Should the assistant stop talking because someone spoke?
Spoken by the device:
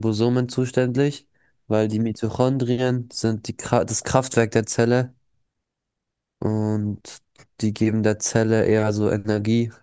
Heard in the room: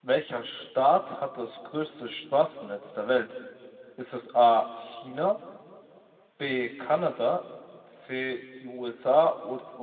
Yes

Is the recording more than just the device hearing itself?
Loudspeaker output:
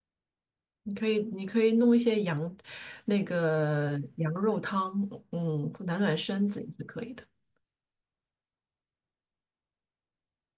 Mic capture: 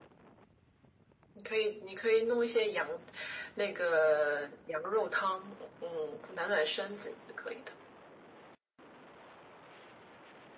No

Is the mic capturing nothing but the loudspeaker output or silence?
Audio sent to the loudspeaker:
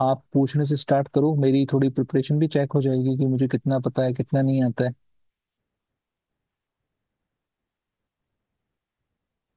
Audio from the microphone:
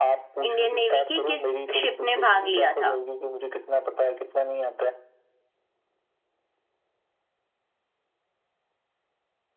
No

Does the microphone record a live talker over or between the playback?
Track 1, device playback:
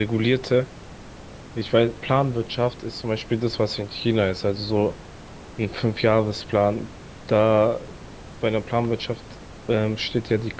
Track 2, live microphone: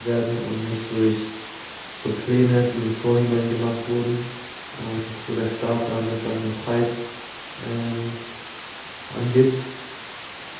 Yes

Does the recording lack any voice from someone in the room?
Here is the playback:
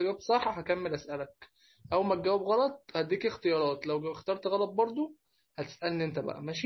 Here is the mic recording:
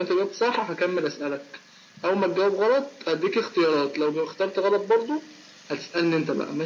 Yes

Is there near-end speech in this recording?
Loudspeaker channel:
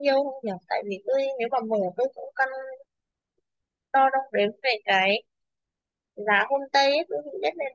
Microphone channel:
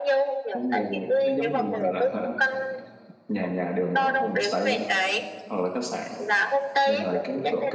Yes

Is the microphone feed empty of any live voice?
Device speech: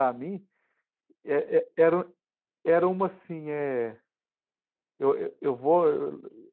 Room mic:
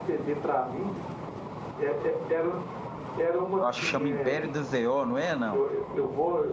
No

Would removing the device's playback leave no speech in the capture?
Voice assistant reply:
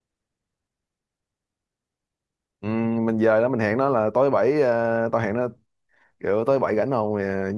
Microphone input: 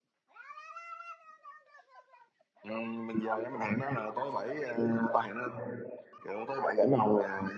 Yes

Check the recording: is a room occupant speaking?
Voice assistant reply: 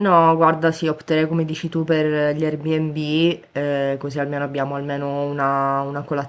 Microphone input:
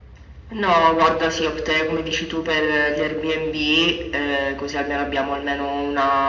No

